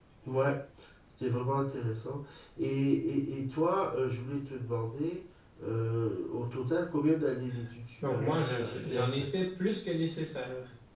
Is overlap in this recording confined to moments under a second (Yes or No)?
No